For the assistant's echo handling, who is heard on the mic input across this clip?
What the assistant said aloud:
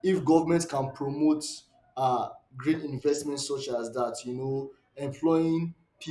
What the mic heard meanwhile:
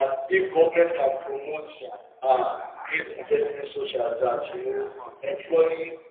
both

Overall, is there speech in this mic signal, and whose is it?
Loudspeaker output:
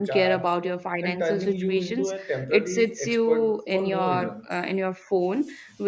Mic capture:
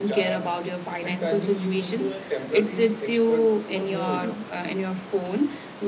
echo only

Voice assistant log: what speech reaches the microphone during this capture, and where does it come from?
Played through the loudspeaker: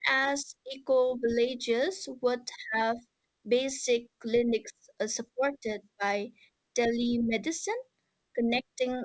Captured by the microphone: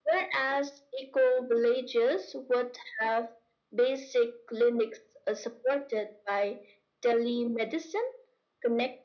echo only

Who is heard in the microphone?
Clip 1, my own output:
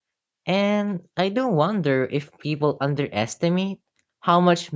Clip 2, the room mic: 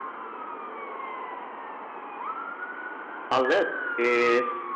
user only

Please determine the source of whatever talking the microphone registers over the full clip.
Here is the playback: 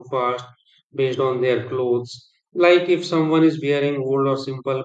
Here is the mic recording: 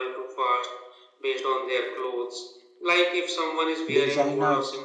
both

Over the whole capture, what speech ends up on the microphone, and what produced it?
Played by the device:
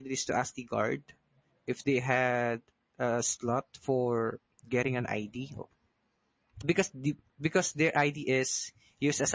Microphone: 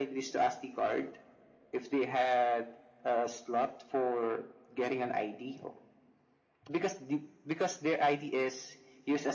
echo only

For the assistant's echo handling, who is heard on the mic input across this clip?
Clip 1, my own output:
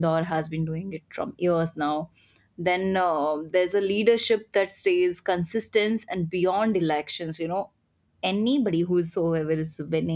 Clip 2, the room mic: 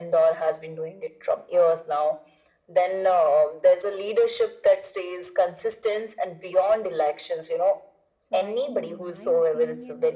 both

